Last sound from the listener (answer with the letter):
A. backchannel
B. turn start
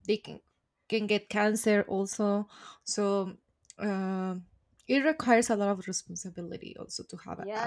B